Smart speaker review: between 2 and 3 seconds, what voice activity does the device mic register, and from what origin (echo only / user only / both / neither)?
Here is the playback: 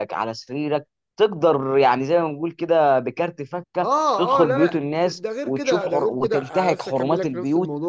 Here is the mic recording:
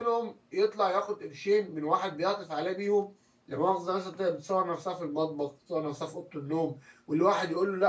user only